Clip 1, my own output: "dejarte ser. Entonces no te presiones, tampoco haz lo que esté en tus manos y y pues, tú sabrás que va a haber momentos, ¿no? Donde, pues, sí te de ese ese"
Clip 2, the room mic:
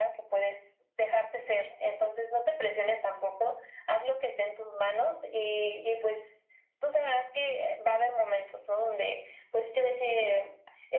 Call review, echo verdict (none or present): present